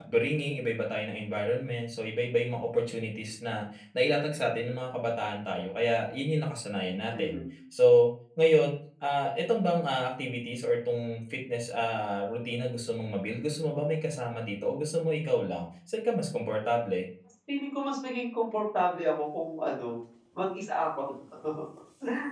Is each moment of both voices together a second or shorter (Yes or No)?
Yes